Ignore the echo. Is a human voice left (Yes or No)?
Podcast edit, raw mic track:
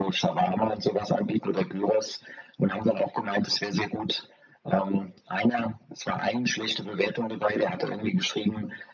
No